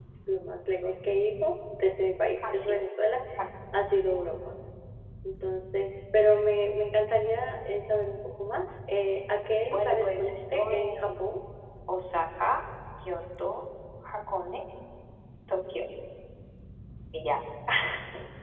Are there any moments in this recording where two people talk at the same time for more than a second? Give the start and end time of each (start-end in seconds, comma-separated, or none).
9.7-11.4